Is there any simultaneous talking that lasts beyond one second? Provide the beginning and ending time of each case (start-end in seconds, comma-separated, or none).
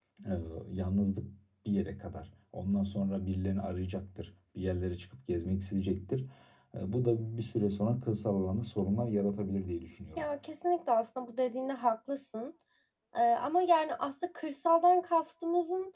none